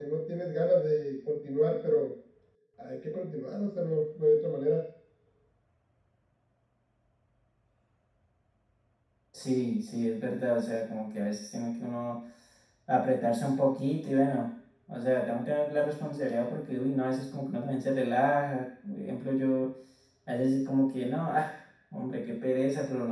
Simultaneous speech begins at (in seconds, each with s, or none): none